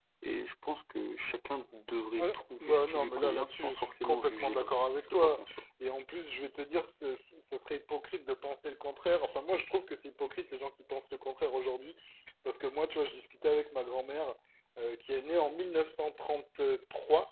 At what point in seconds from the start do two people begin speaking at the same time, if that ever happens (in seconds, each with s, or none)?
2.2 s